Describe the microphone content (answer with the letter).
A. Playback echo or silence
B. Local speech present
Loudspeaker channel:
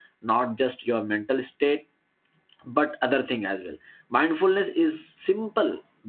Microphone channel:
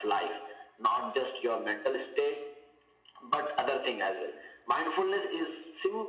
A